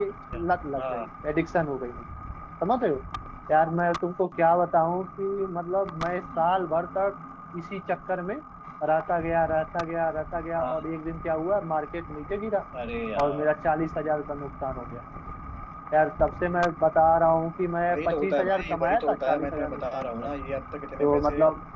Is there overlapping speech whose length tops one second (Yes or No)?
Yes